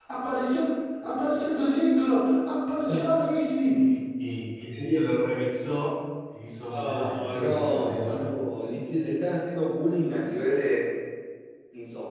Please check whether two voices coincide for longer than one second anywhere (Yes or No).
Yes